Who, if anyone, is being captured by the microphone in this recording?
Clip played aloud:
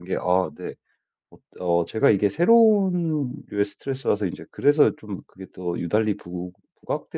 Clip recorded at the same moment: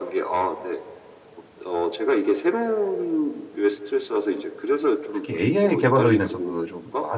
both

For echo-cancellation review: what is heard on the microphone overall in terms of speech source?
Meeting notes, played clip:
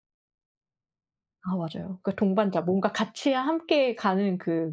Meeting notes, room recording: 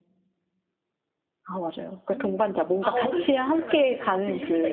both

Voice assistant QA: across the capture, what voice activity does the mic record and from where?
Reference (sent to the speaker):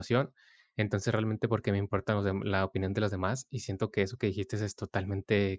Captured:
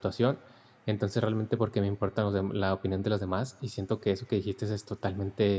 echo only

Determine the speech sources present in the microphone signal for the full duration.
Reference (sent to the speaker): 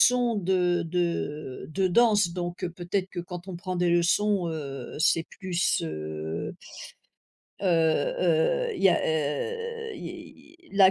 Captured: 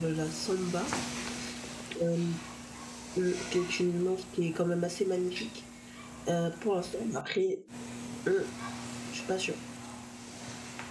user only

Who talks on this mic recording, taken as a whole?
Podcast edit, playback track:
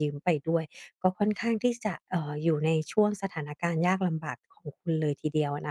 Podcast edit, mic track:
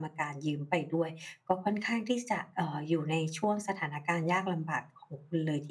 echo only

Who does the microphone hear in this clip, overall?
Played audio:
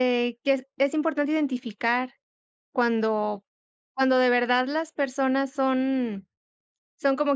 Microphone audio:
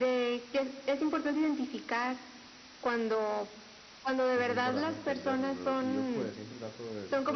both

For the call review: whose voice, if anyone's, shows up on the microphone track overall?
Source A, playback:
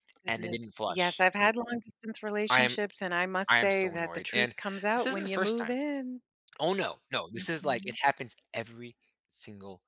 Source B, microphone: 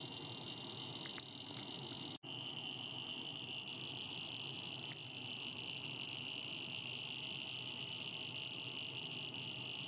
neither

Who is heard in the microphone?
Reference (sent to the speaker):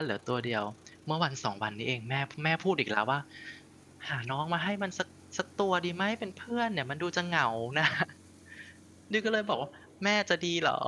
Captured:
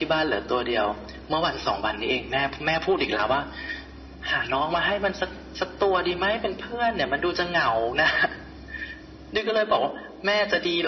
echo only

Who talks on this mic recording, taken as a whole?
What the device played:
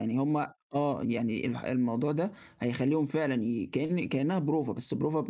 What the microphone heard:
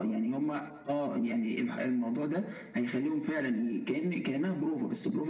echo only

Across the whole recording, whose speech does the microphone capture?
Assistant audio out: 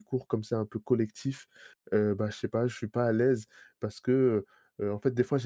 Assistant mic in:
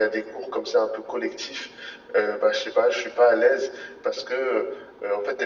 echo only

